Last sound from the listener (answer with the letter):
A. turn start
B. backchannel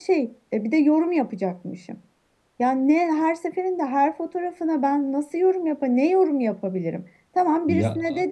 B